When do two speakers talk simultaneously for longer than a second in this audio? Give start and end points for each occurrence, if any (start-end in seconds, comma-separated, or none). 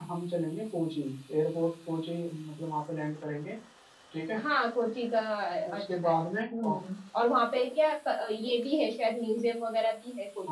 none